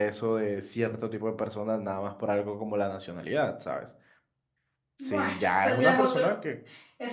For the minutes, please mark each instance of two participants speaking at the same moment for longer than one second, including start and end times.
5.0-6.4

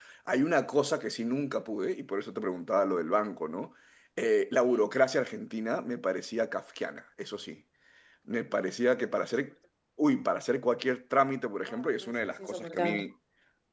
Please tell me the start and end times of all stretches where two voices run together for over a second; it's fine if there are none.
11.6-13.0

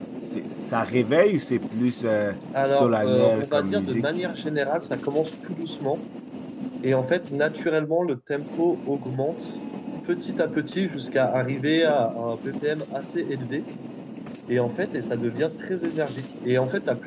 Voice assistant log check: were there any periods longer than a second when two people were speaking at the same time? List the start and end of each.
2.6-4.0

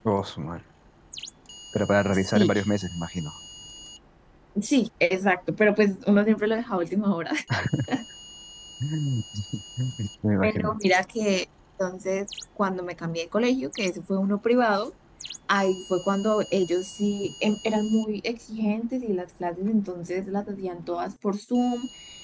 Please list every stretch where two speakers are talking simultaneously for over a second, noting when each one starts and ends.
none

